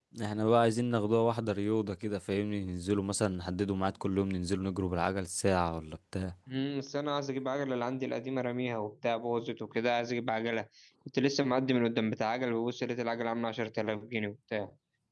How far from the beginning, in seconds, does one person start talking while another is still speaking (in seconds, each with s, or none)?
none